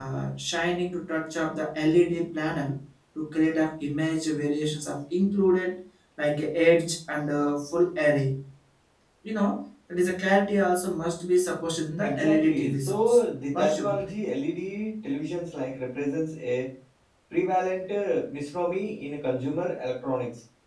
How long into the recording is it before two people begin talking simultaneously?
12.0 s

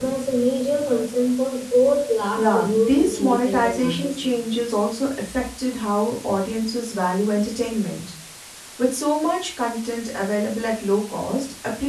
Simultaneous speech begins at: 2.4 s

